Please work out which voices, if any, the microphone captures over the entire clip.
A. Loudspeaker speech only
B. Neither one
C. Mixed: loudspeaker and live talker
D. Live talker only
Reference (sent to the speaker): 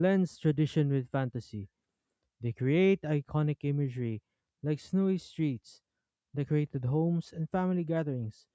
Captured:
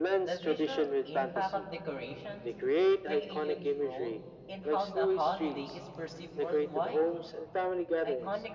C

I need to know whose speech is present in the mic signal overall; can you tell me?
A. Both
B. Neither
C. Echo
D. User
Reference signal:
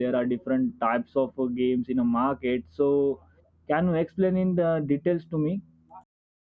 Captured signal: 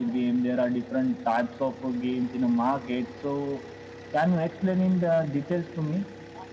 C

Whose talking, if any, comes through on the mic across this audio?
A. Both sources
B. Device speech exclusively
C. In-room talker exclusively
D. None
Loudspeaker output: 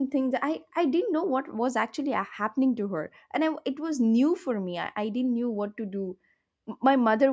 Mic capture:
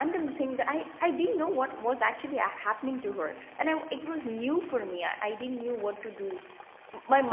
B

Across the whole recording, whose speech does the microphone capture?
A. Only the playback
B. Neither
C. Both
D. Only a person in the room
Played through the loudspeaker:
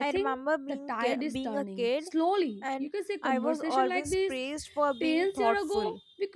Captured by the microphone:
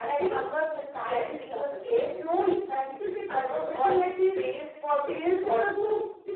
A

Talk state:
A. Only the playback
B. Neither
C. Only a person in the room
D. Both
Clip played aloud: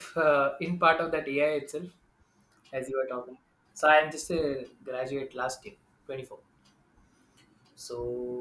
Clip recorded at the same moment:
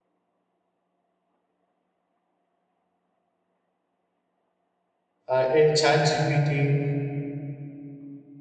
C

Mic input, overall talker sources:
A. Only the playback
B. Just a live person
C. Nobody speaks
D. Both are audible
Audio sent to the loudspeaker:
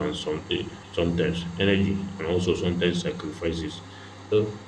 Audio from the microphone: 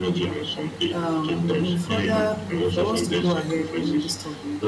D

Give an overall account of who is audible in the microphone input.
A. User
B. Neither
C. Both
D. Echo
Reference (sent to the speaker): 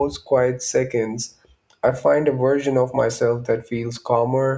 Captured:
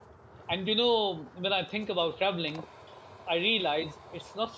A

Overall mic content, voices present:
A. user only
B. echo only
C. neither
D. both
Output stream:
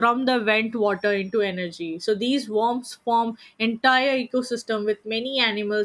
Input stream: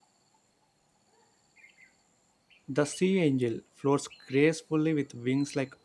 A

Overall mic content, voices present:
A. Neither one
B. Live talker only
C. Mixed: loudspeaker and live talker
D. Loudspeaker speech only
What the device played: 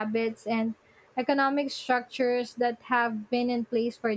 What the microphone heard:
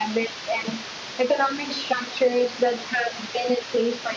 D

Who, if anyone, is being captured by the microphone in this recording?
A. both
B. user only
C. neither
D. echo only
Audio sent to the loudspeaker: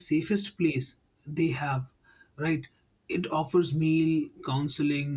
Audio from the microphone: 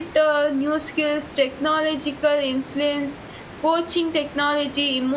B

